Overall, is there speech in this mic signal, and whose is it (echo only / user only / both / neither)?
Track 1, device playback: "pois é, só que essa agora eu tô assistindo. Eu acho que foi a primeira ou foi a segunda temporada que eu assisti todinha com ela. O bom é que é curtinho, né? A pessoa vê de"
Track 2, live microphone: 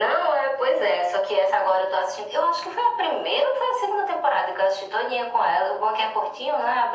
echo only